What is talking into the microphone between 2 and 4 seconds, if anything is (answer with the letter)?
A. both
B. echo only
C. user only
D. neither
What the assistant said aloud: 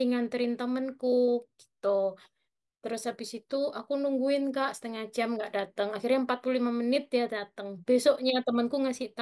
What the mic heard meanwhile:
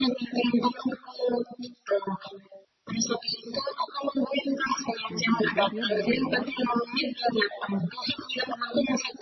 B